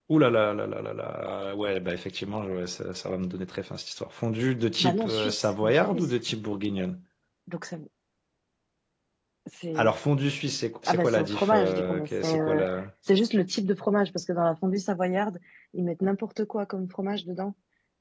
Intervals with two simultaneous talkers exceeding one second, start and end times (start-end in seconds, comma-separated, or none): 4.8-6.0, 10.9-12.6